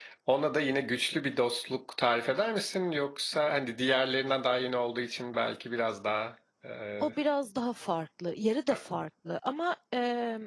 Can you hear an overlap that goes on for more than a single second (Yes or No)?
No